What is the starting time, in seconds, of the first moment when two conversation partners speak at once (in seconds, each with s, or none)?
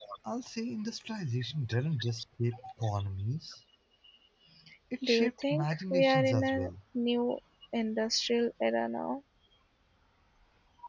5.0 s